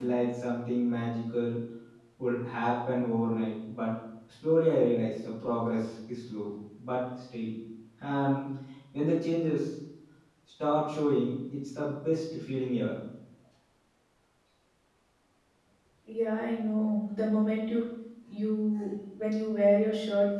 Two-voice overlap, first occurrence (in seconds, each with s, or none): none